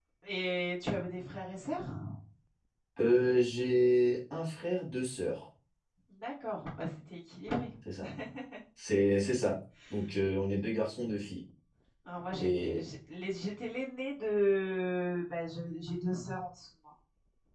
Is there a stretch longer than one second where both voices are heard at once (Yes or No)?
No